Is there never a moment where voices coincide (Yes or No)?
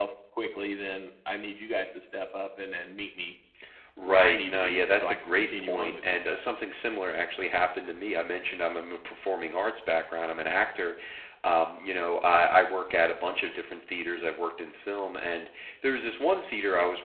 No